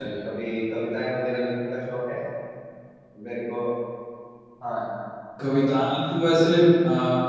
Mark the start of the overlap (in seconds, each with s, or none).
none